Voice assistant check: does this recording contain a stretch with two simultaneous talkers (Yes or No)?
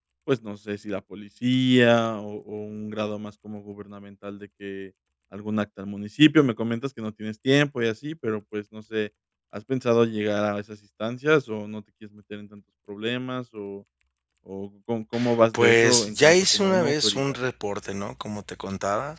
Yes